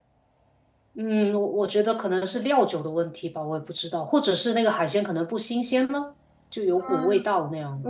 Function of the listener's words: taking over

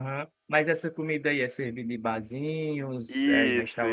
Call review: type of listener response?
taking over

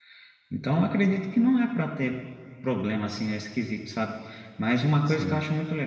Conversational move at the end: listening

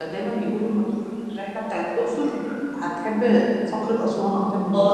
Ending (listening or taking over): taking over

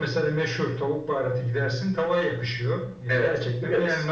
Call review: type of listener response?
listening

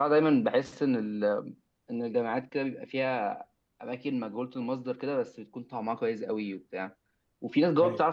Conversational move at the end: listening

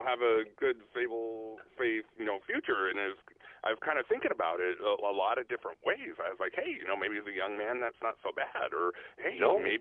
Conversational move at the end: listening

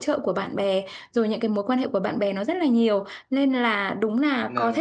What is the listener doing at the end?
listening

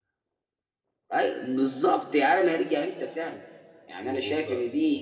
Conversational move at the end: taking over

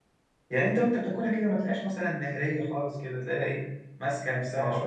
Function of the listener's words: taking over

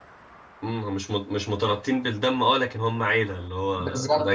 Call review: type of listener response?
taking over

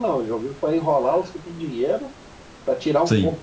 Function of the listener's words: taking over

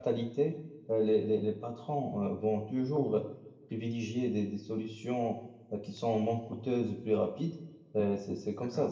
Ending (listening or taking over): listening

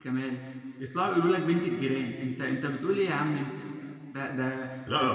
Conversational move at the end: listening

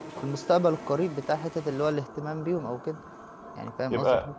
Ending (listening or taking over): taking over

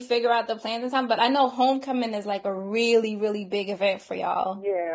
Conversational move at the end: taking over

